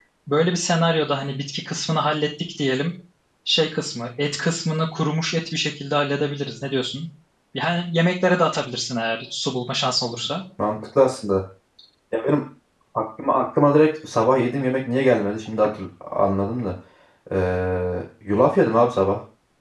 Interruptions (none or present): none